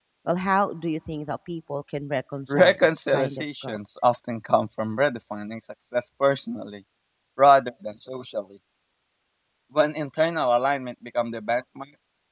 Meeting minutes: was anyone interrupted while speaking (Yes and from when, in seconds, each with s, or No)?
Yes, from 2.5 s